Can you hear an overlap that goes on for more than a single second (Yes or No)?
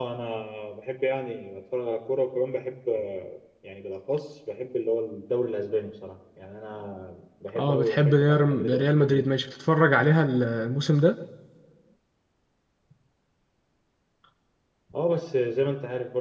Yes